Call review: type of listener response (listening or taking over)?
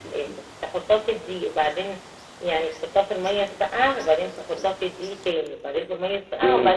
taking over